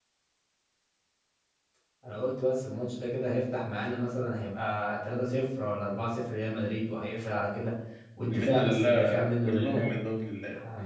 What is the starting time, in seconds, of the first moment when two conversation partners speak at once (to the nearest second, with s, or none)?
8 s